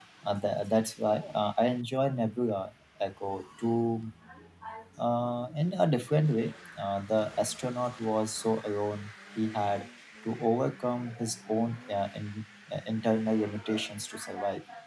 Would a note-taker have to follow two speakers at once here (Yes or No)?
No